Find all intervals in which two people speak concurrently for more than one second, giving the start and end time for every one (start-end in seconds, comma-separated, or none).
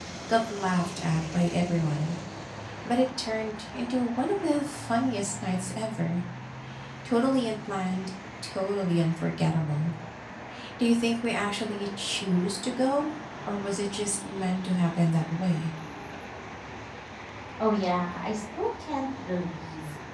none